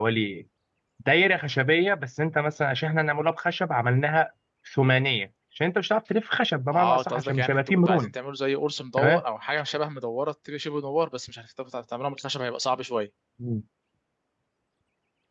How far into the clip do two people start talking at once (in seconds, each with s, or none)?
6.7 s